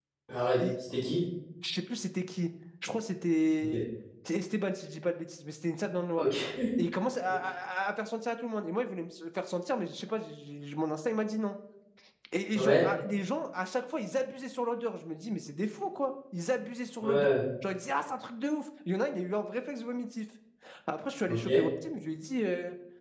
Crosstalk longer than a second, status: none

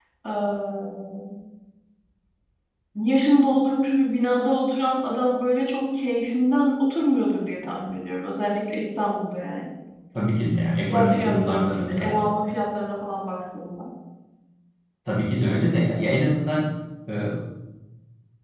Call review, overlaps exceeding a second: present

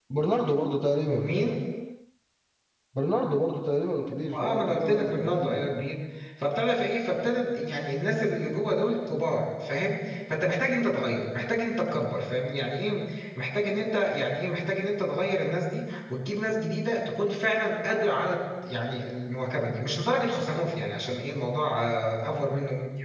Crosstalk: present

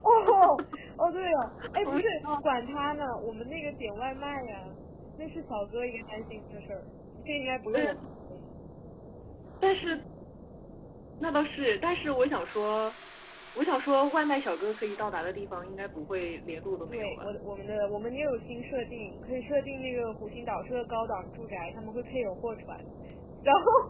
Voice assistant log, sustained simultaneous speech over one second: none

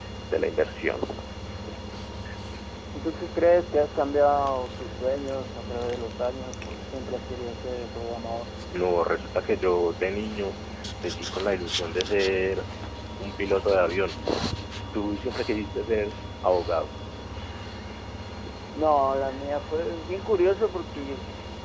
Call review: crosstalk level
none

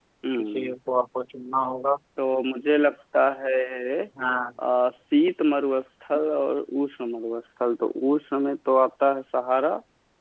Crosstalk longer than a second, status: none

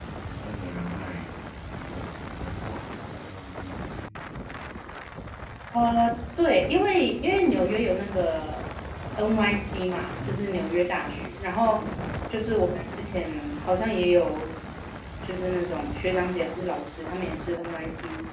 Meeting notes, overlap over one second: none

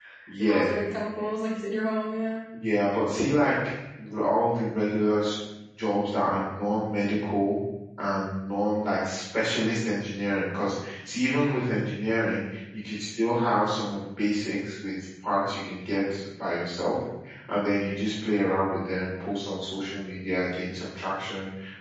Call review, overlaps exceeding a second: none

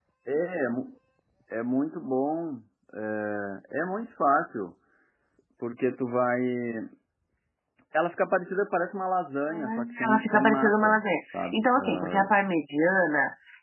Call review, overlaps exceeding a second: present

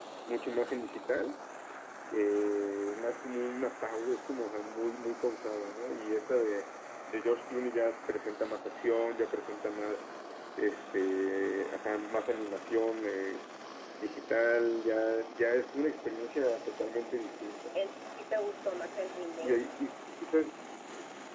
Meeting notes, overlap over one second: none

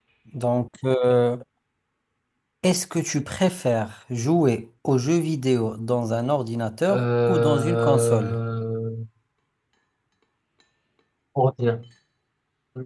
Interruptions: present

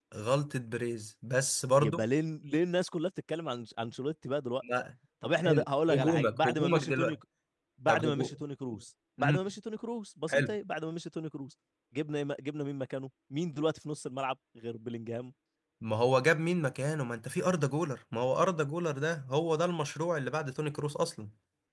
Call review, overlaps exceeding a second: present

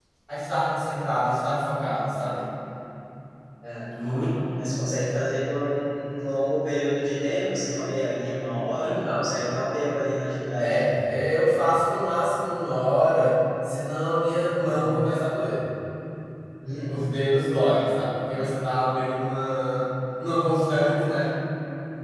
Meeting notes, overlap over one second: none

